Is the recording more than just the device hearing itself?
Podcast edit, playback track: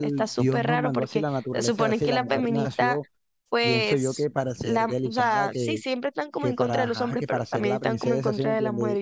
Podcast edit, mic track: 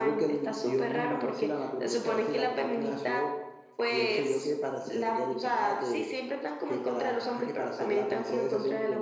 No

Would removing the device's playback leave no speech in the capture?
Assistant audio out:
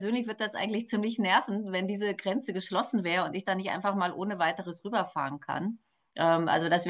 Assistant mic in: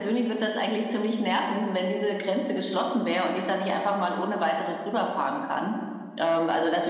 Yes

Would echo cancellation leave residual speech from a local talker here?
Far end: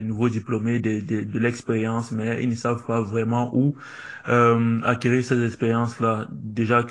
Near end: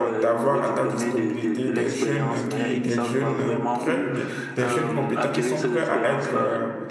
Yes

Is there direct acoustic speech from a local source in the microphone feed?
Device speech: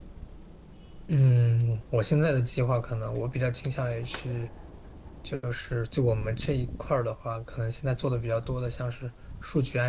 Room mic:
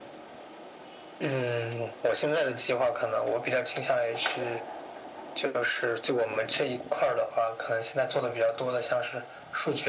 No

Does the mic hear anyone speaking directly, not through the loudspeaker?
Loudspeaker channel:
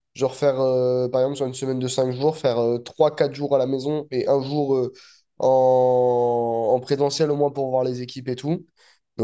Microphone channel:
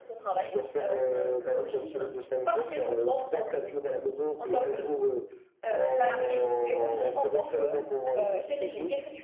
Yes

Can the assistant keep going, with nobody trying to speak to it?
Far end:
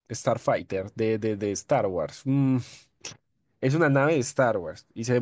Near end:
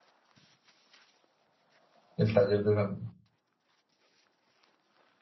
No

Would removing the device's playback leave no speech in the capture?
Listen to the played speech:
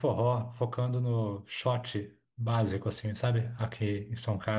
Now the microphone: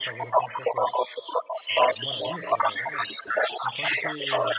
No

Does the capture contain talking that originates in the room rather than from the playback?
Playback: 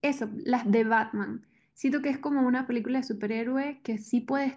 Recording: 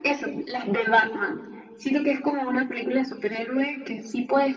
No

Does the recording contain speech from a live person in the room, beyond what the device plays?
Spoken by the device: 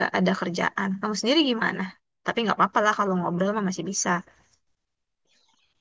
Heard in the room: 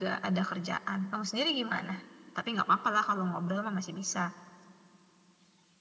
No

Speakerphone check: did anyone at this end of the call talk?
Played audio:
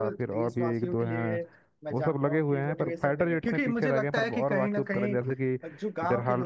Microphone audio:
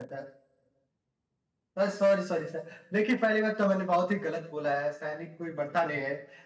Yes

